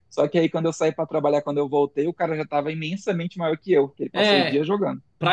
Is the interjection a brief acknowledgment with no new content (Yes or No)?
No